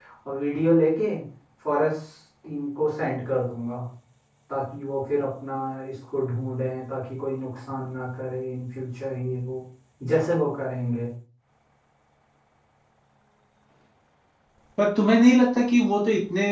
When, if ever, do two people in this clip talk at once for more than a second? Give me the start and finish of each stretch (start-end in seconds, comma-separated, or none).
none